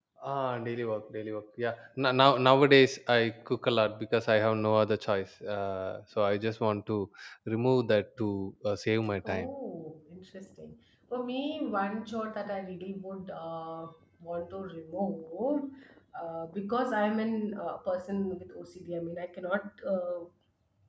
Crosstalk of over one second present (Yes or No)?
No